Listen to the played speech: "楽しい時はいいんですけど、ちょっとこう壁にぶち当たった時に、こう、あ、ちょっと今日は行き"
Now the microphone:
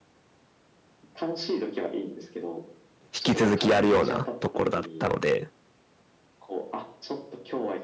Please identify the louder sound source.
user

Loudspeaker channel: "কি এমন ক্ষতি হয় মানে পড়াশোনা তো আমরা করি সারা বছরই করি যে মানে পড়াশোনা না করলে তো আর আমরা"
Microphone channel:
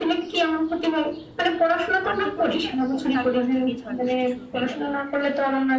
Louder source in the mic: echo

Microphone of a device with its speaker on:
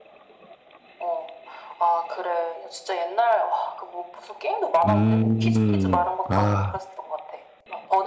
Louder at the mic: user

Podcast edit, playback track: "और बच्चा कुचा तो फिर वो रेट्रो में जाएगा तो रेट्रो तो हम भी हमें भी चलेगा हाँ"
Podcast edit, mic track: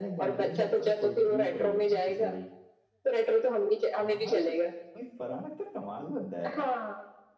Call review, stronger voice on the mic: echo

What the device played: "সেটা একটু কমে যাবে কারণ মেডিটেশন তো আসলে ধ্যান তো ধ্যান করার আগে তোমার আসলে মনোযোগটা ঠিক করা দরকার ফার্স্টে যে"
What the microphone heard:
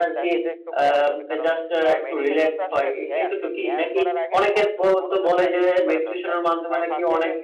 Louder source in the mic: user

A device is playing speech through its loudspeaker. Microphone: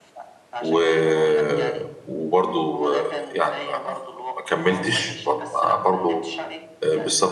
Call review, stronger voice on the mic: user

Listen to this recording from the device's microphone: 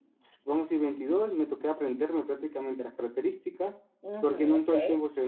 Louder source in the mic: echo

